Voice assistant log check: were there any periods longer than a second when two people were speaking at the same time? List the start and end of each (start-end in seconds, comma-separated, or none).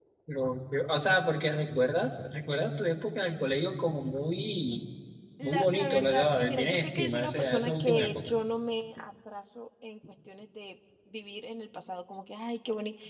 5.4-8.3